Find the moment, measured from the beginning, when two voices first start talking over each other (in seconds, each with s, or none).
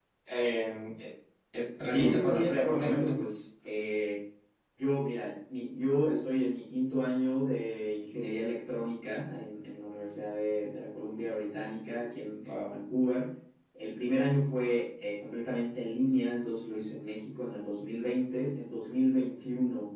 1.8 s